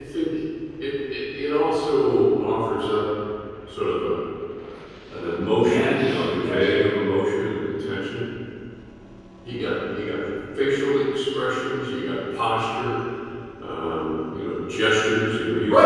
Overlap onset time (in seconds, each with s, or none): 5.6 s